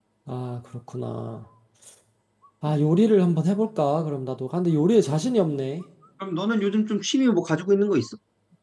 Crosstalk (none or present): none